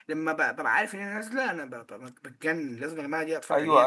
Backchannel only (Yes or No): No